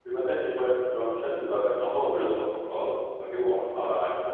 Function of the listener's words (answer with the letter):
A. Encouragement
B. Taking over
A